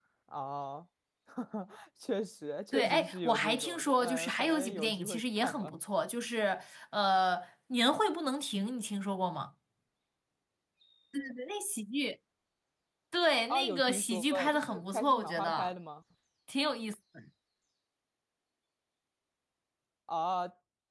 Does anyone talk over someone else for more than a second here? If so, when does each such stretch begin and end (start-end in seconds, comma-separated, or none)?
2.7-5.7, 13.5-15.7